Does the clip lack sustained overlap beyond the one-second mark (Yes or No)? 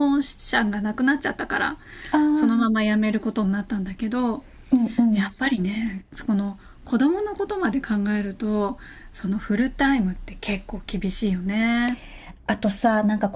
Yes